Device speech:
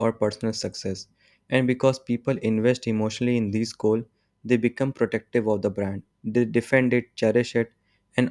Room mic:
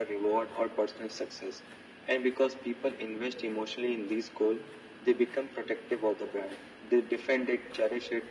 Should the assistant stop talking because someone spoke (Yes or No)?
No